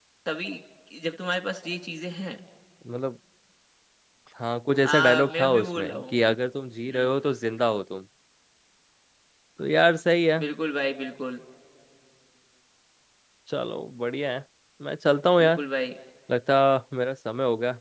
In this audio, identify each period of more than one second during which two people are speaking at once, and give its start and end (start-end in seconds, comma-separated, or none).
4.8-6.2